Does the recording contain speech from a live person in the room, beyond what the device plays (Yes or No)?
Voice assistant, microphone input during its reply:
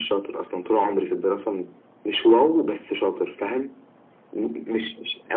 No